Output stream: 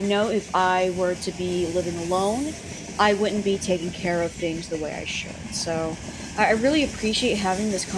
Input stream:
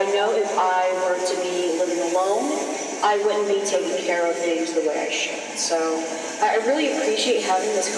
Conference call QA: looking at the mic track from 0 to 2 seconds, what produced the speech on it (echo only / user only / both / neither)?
echo only